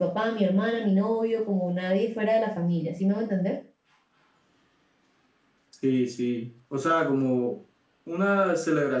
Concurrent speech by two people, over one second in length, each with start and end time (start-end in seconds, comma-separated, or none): none